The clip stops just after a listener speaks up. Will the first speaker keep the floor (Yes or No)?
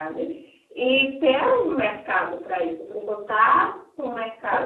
No